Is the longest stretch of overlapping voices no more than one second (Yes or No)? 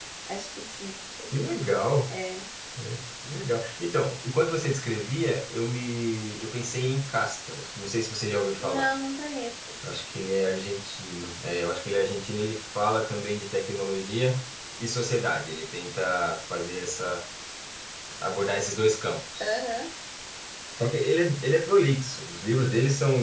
Yes